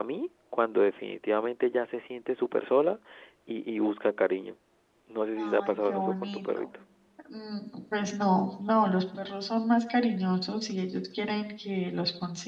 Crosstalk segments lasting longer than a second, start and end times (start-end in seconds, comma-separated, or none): 5.4-6.7